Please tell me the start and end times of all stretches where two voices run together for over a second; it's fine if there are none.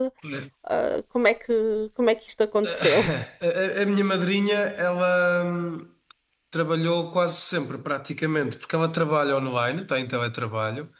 none

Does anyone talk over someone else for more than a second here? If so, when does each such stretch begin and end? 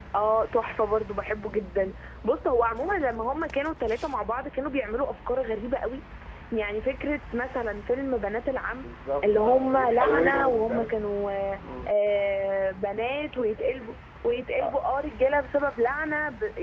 9.2-10.9

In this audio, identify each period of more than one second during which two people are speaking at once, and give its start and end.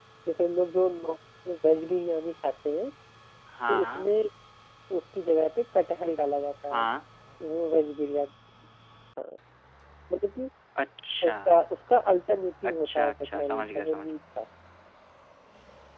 12.6-14.1

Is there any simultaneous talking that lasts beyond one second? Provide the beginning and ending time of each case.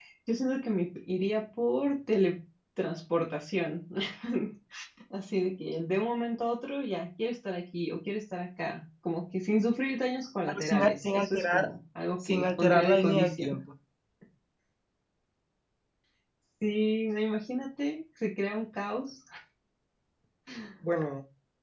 10.5-11.7, 12.2-13.6

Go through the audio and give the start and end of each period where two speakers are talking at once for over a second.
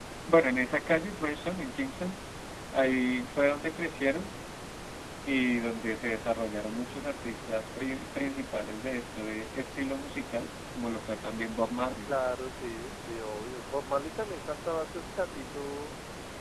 none

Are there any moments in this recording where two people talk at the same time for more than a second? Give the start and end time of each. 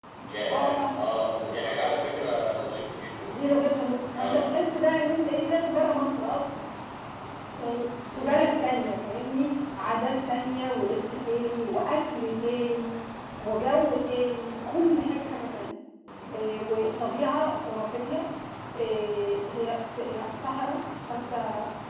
none

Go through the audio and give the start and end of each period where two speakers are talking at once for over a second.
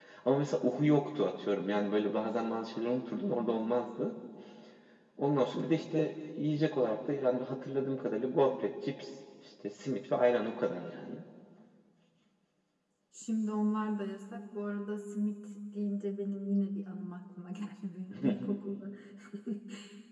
none

